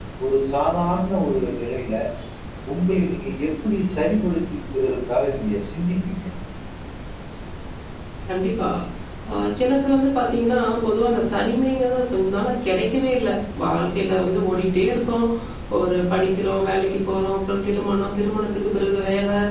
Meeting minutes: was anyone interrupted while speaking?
No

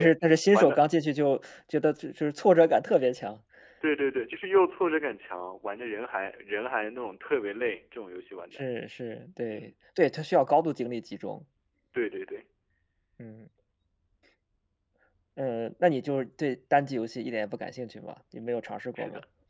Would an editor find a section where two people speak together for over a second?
No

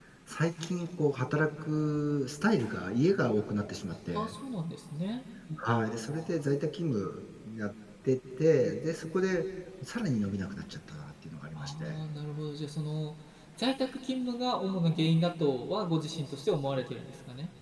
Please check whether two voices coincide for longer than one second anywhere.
No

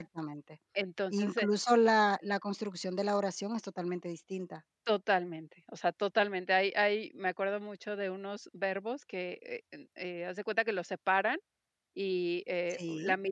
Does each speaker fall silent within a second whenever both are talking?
Yes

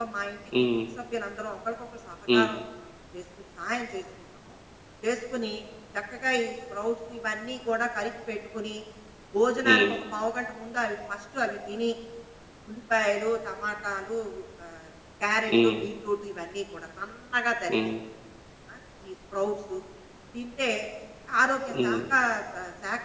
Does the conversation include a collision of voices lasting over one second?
No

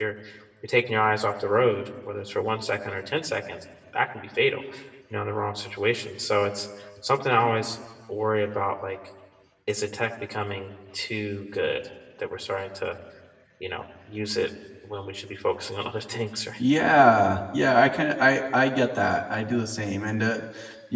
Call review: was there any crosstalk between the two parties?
No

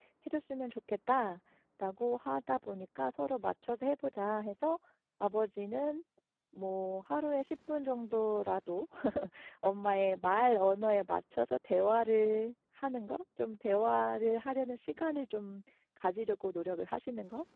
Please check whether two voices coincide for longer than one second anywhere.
No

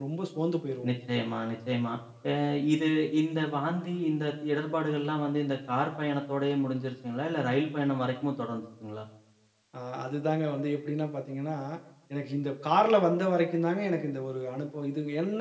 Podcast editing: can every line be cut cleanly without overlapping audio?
Yes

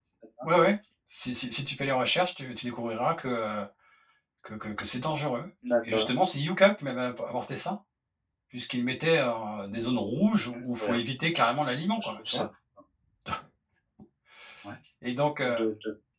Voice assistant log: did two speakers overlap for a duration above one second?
No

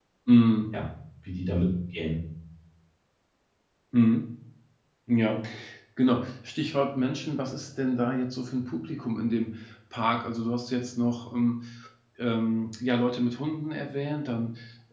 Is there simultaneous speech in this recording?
No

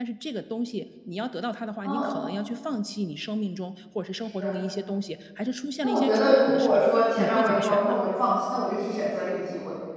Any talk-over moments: Yes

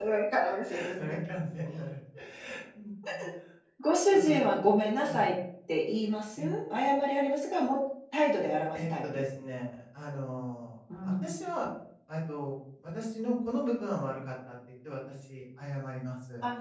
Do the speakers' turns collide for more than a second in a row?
No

